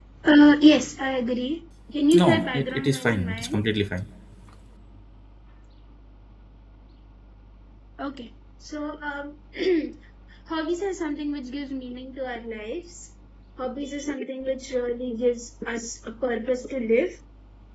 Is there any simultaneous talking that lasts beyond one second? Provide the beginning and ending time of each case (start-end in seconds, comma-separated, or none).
2.1-3.6